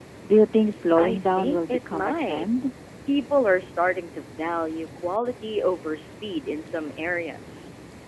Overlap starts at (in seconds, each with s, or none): 1.0 s